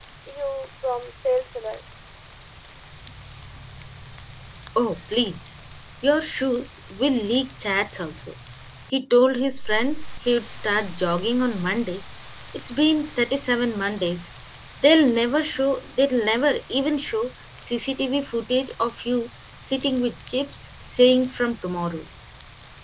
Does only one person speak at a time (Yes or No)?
Yes